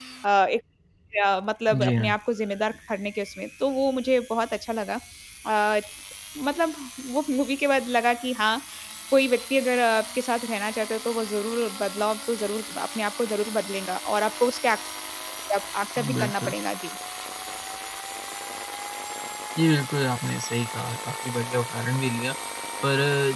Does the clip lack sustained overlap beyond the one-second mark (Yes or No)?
Yes